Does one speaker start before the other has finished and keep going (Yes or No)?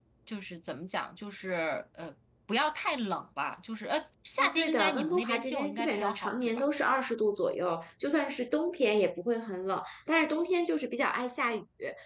Yes